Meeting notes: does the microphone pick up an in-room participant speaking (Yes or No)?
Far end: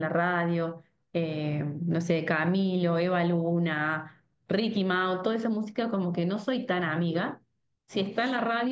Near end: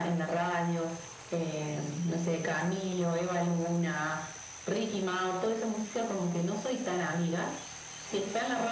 No